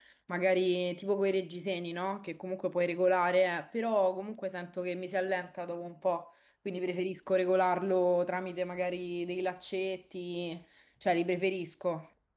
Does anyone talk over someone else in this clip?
No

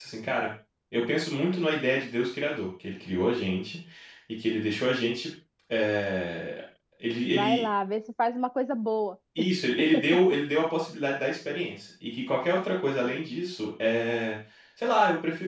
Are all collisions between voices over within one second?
Yes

